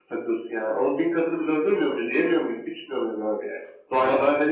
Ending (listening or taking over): listening